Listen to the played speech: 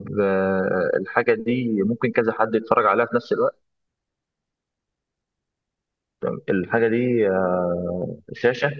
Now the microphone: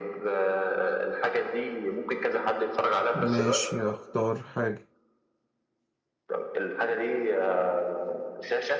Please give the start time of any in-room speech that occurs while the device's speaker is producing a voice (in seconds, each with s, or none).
3.1 s